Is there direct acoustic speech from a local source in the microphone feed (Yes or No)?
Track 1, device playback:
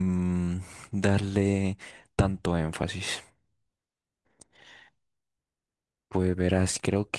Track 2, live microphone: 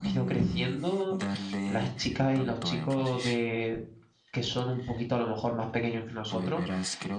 Yes